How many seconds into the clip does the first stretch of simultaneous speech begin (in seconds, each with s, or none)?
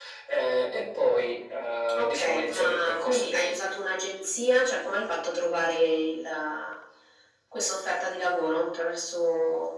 1.9 s